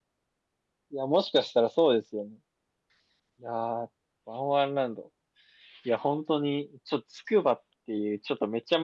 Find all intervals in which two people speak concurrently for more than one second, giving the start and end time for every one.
none

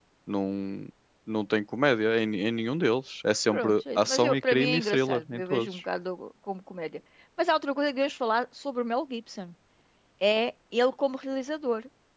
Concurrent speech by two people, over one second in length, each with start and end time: 3.5-5.8

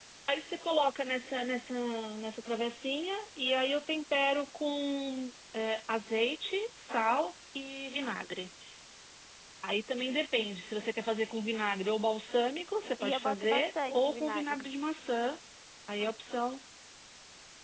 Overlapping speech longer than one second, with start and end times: 13.0-14.7

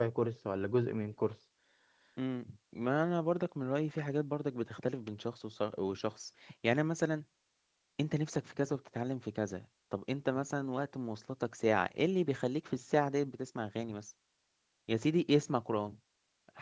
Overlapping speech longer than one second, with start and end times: none

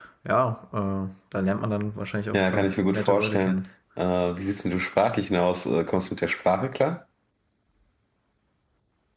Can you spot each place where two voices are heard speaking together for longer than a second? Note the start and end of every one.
2.3-3.6

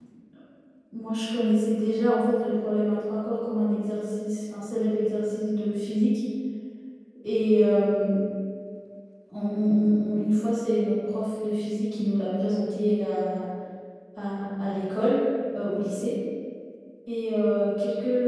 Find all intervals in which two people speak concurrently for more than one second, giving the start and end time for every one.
none

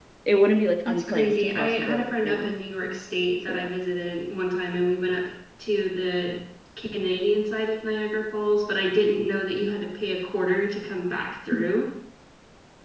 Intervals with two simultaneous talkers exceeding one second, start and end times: 0.8-2.5

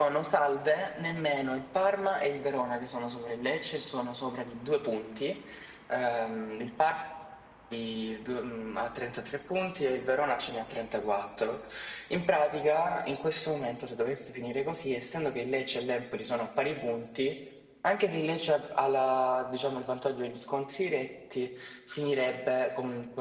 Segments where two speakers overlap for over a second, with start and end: none

